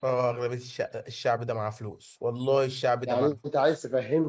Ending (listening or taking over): taking over